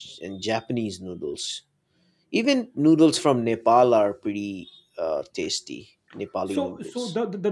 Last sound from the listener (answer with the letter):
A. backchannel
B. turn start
B